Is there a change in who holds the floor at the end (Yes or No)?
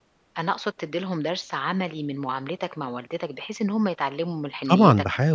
Yes